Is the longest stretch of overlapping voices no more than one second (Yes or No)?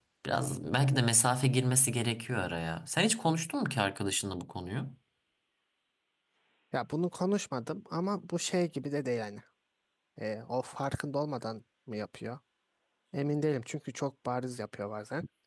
Yes